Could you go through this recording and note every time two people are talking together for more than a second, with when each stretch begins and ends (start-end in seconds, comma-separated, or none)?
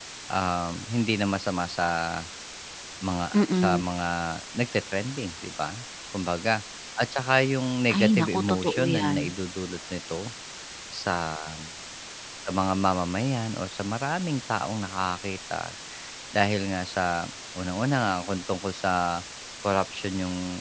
8.0-9.2